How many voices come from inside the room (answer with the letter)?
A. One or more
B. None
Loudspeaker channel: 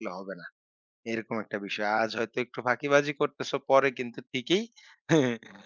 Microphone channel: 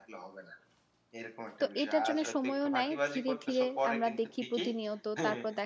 A